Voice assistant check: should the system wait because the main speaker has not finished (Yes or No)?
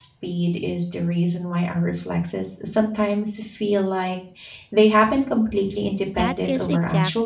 No